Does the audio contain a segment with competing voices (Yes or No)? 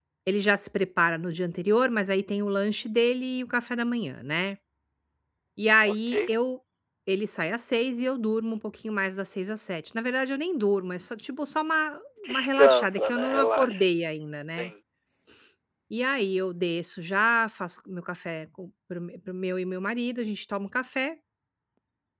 Yes